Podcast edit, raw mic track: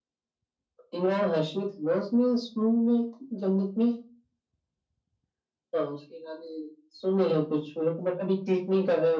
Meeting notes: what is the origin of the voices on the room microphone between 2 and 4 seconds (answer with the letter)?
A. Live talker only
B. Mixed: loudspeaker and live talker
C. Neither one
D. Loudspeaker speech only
D